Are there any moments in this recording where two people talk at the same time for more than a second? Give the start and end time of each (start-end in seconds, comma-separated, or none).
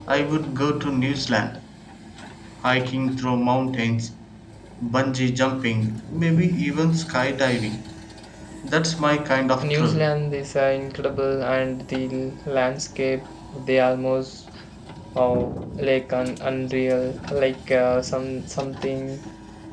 none